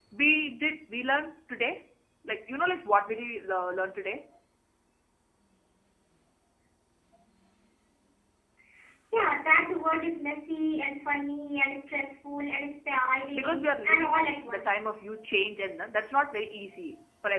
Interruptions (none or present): present